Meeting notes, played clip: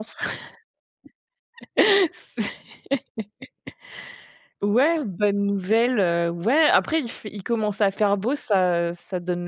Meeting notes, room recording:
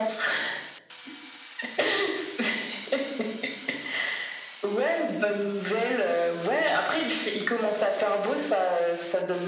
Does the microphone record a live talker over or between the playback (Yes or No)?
No